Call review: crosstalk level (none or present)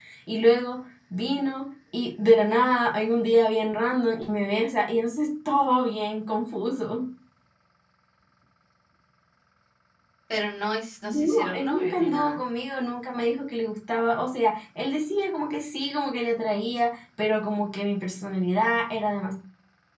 present